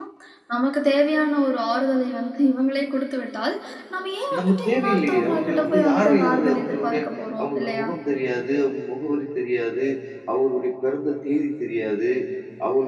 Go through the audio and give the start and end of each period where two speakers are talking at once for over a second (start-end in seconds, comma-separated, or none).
4.4-7.0